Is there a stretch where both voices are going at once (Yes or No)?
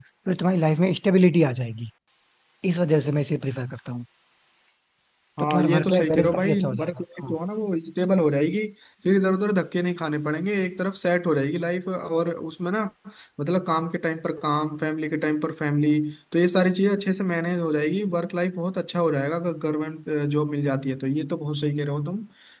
Yes